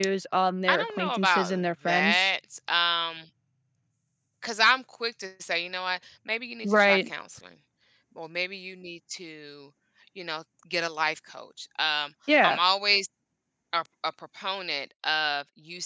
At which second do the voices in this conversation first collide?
0.7 s

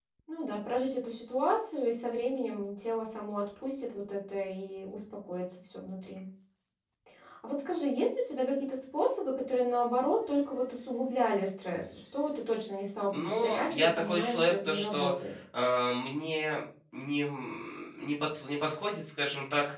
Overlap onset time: 13.1 s

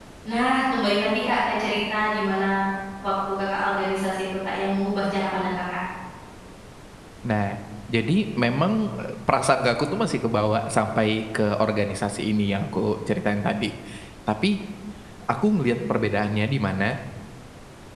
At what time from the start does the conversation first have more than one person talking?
none

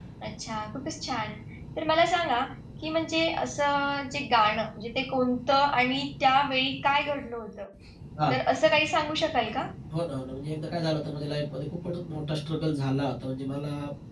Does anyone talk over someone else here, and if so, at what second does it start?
none

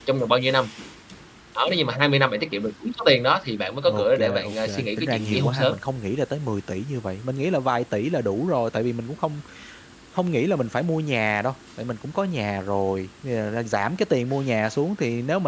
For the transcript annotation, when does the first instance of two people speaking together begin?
3.9 s

